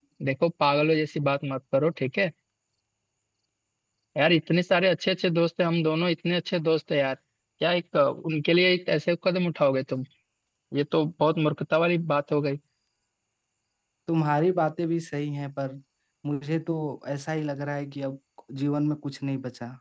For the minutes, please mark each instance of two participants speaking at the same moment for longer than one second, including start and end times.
none

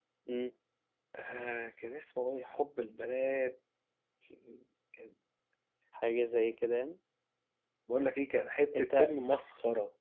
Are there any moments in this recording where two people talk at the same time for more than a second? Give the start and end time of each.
none

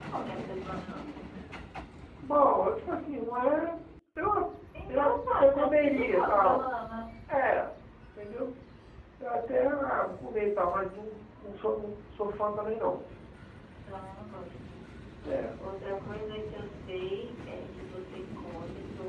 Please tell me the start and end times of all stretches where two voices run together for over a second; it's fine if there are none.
4.9-6.6

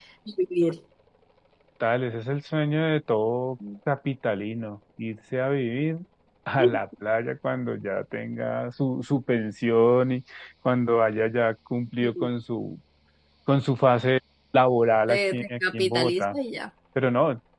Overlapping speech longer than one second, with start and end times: 15.1-16.4

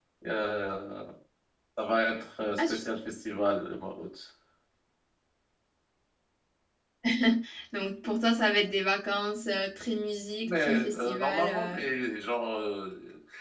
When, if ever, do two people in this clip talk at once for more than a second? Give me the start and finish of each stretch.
10.4-11.8

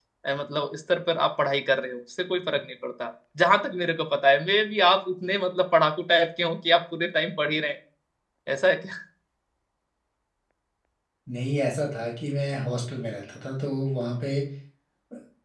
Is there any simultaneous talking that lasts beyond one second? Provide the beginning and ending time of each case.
none

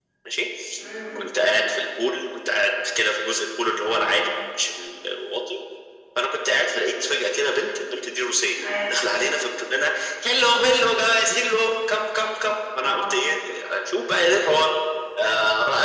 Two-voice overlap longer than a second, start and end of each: none

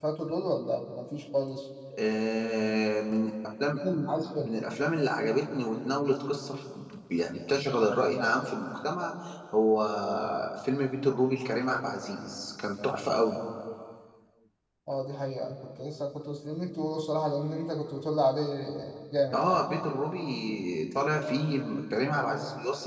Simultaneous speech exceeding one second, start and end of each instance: none

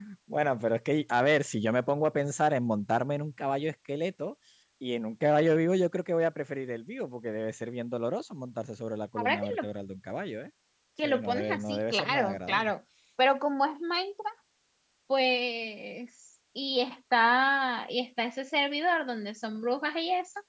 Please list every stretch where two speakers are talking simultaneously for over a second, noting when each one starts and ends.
11.0-12.7

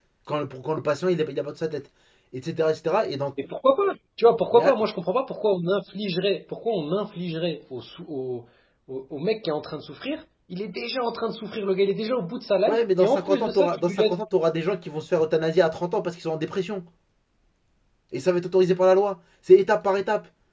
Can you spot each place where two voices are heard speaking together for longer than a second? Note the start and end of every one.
12.7-14.2

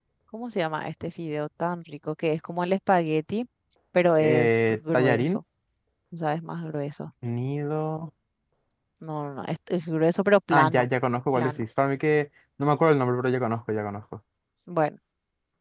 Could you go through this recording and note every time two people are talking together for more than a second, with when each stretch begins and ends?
4.2-5.4

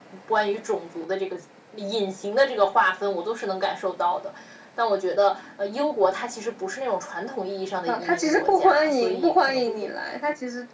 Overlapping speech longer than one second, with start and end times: 7.9-9.9

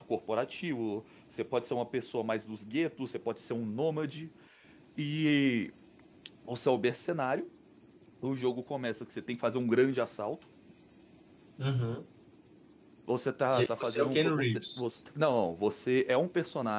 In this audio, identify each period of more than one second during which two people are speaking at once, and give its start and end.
13.5-14.8

